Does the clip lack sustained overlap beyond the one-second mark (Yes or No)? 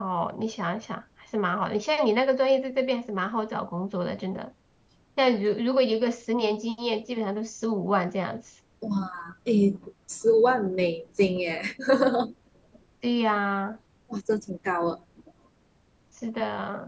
Yes